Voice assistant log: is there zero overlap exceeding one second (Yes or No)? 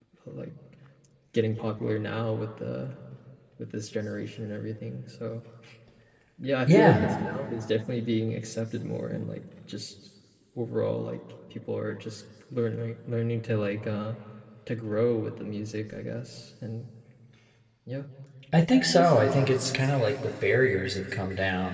Yes